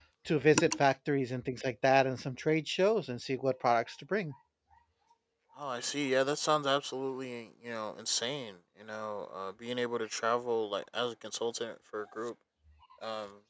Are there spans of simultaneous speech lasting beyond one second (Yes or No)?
No